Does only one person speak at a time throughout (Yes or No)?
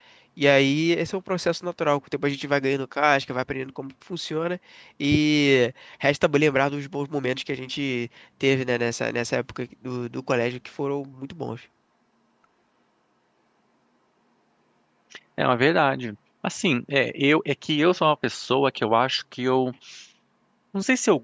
Yes